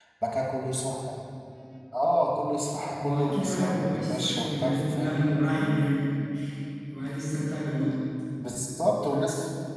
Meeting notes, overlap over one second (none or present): present